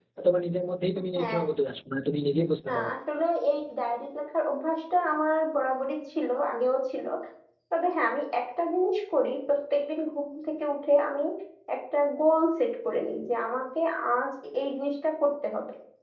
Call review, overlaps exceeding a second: none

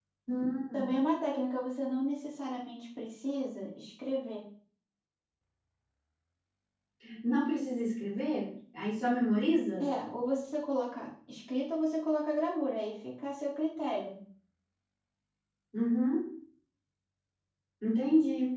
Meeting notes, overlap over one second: none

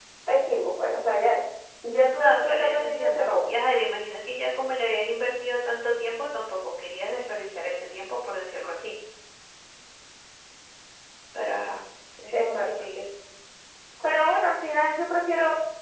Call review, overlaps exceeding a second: present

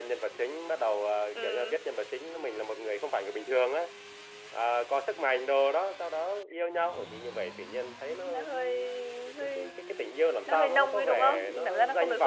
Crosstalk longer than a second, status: present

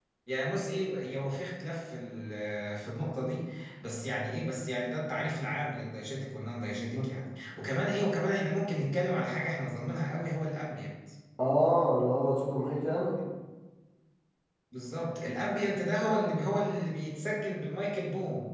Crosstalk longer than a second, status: none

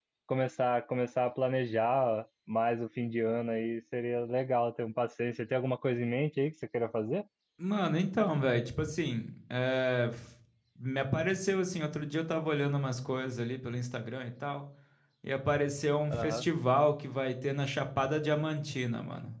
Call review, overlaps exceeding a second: none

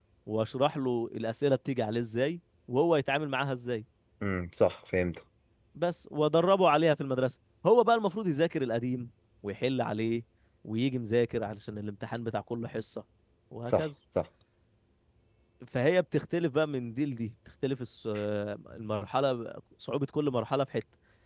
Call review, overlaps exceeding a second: none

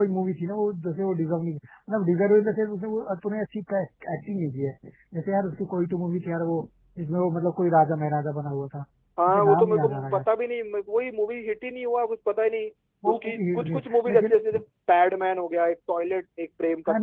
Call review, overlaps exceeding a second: present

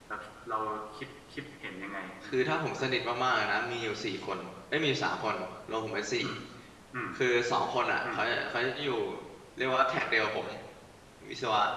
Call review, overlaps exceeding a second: none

